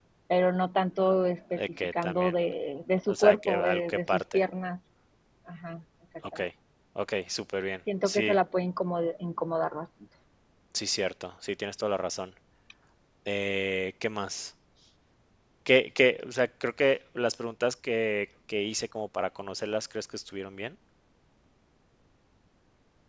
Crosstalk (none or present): present